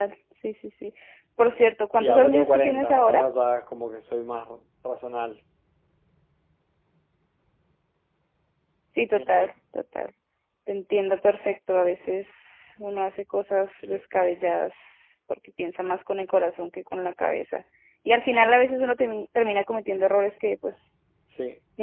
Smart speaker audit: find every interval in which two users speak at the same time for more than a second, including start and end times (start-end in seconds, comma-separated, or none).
2.0-3.2